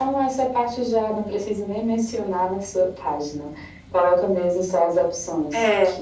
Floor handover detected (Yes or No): Yes